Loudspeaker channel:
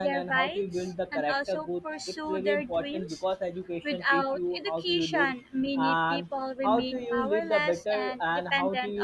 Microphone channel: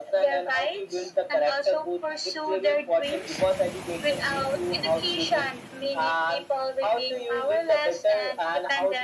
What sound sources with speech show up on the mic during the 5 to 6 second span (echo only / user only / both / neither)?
echo only